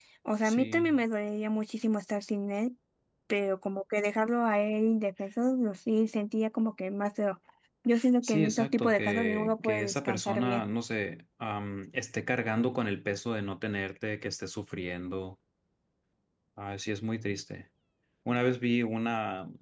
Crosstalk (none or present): present